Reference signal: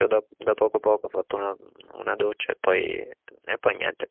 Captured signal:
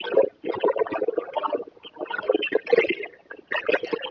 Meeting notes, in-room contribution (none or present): none